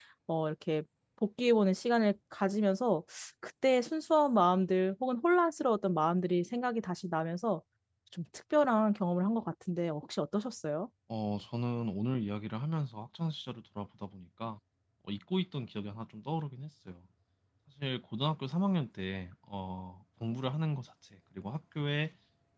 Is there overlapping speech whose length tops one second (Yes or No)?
No